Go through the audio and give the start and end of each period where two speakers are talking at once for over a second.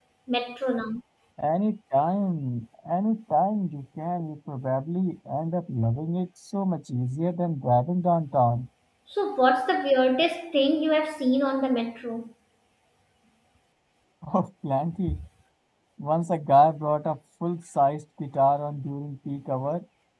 none

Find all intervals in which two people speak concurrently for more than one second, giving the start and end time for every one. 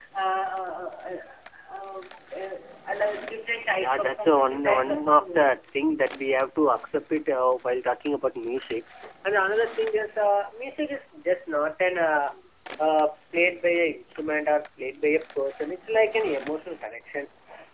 3.8-5.5

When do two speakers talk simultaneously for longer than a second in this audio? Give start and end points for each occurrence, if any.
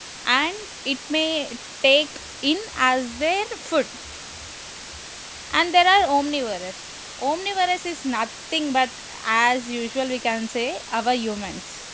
none

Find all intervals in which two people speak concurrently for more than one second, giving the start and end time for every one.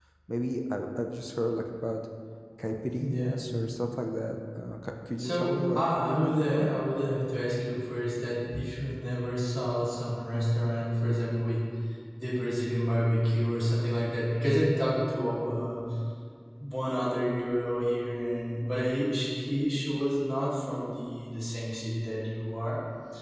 5.2-6.7

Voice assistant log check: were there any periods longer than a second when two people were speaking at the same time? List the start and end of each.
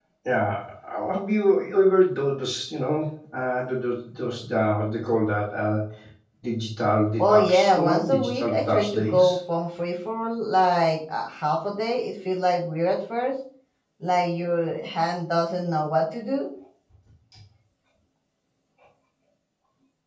7.2-9.4

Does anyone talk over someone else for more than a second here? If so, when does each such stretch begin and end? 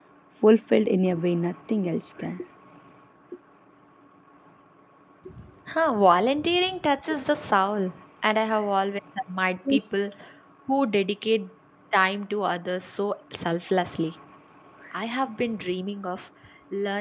none

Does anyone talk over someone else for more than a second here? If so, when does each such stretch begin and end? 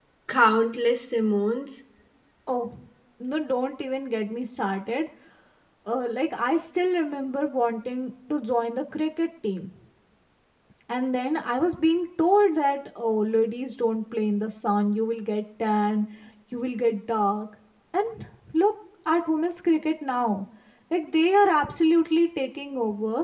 none

